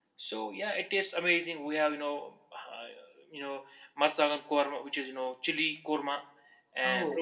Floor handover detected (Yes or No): No